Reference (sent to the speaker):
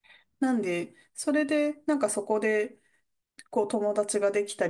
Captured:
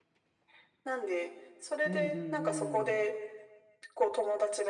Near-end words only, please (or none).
うんうんうん。